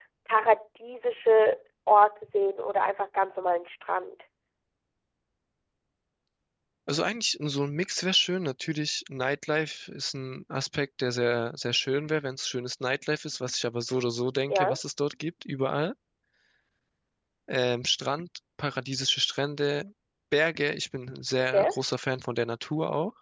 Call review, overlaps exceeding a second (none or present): none